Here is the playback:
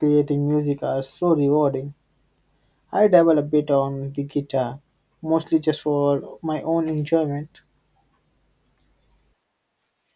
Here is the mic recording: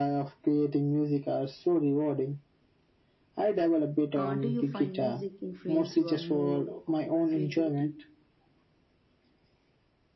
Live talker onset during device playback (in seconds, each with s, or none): 4.1 s